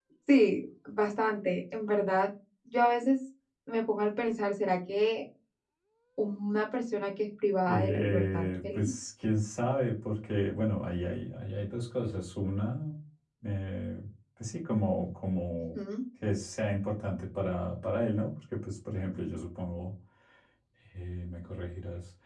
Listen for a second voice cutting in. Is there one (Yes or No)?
Yes